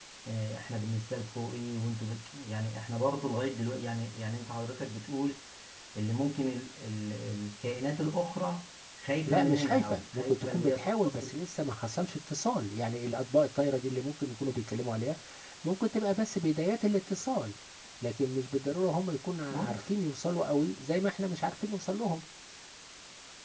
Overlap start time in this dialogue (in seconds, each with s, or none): 9.3 s